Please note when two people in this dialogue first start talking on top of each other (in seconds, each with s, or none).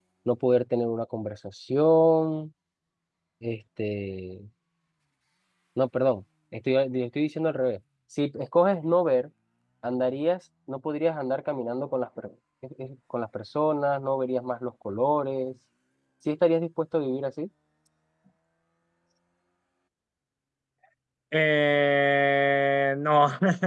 none